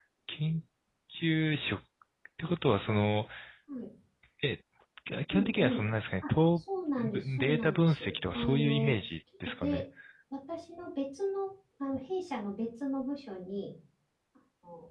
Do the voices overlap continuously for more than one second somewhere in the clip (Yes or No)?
Yes